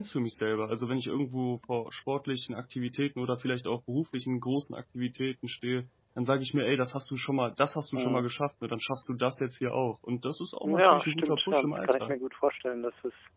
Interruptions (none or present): present